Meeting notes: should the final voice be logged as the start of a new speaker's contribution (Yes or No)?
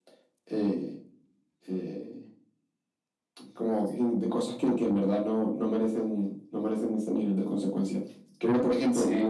No